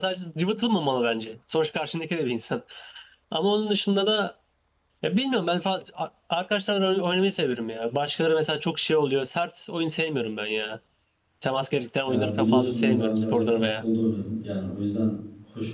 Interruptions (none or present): present